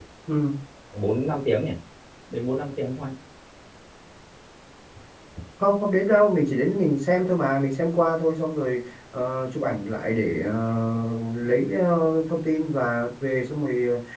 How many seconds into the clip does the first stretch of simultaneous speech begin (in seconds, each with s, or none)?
none